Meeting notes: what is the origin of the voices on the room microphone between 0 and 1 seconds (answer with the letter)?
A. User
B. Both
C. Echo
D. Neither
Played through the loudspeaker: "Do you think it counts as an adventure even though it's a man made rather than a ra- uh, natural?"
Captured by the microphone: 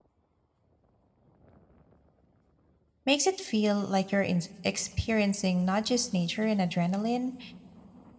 D